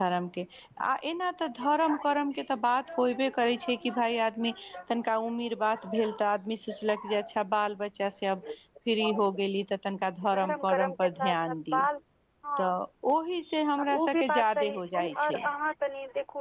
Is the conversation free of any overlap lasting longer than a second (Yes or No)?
No